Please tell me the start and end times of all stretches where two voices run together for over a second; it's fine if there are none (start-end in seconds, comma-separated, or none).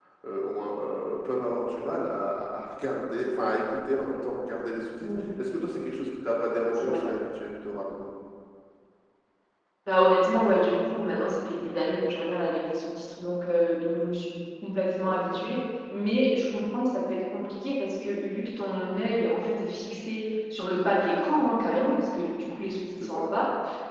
none